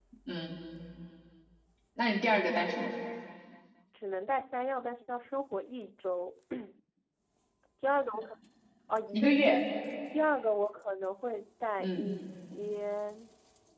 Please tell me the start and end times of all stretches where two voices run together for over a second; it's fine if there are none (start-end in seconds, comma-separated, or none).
none